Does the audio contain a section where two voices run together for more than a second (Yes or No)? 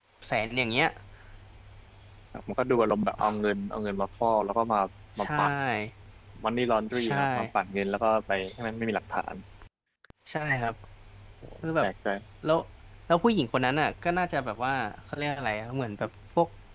No